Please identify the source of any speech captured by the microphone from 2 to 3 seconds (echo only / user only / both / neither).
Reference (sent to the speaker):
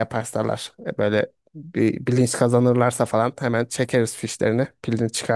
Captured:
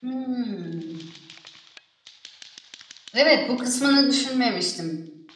neither